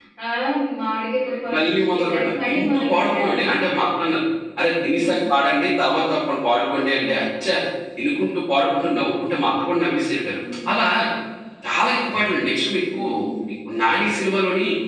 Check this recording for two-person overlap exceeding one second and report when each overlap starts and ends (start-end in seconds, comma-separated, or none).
1.5-3.8